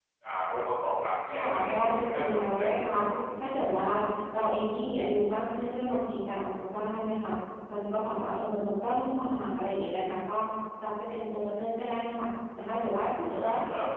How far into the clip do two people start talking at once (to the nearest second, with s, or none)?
1 s